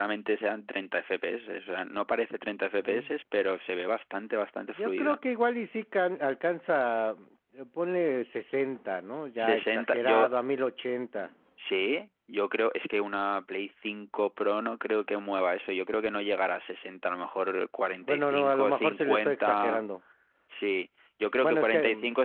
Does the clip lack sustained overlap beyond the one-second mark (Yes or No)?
No